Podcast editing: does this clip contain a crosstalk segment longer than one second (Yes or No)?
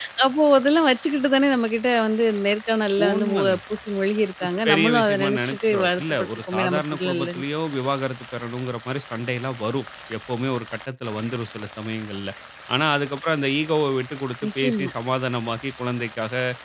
Yes